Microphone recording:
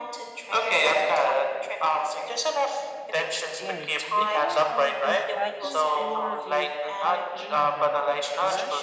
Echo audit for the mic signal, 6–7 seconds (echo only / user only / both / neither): both